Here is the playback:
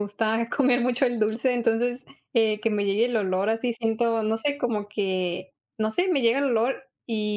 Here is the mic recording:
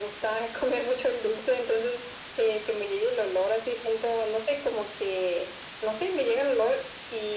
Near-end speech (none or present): none